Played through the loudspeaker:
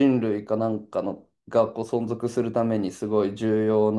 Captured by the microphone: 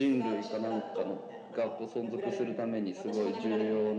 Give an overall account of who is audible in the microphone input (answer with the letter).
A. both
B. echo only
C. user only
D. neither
A